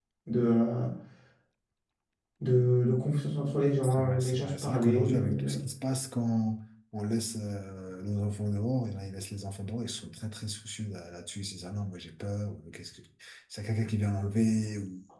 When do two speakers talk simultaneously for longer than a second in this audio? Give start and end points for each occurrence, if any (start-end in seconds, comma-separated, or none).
3.8-5.6